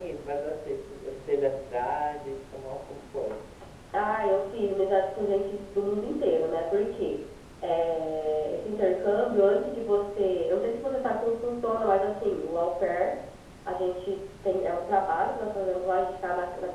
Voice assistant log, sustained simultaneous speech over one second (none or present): none